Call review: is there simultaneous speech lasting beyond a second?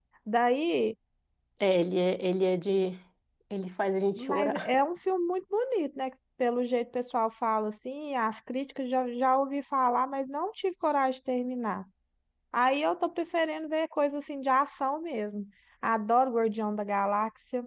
No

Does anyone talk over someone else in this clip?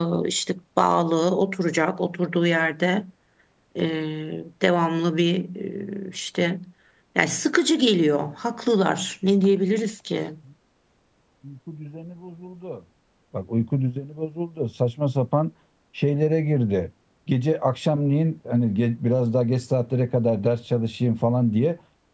No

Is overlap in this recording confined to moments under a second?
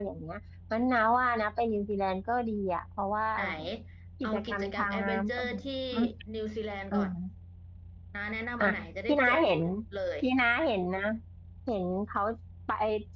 No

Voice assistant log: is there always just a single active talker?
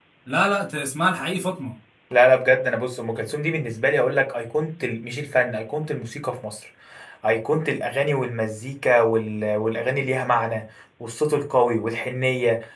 Yes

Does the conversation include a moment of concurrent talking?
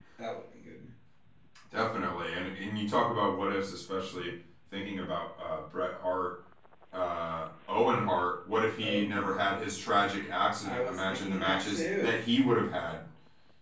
Yes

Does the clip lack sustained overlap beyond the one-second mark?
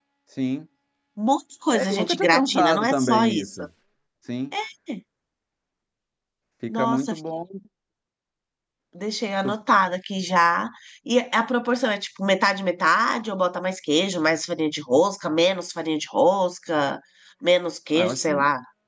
No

